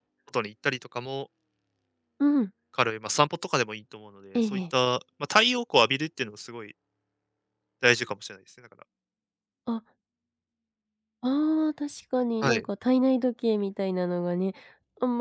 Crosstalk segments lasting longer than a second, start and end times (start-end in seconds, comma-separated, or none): none